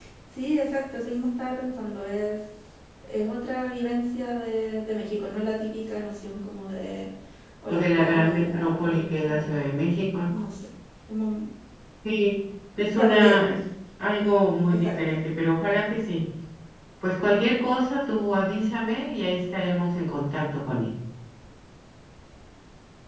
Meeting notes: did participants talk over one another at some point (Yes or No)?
Yes